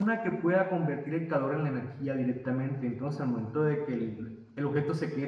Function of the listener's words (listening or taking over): listening